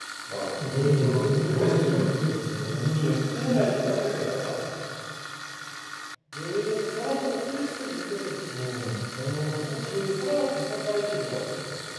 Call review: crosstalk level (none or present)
present